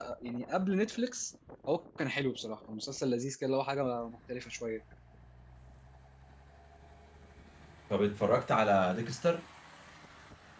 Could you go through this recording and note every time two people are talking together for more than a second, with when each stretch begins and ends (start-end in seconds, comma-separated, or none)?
none